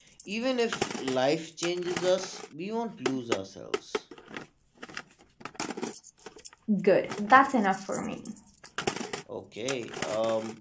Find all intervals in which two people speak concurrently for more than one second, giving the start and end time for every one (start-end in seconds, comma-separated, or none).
none